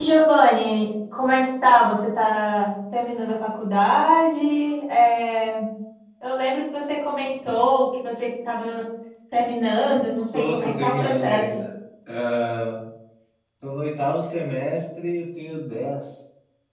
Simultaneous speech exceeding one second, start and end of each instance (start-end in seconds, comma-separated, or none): 10.3-11.6